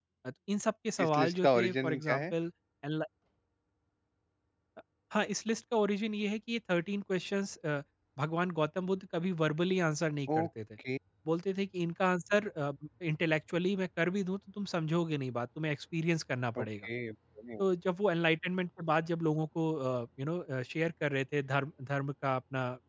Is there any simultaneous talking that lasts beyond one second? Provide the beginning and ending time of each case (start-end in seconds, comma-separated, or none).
1.1-2.3